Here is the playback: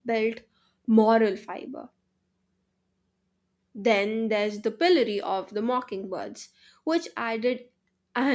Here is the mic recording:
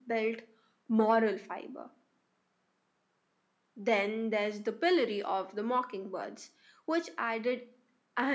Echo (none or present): present